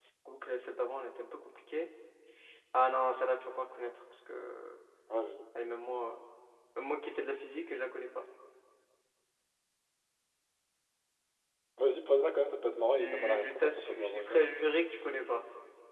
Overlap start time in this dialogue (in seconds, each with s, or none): 13.0 s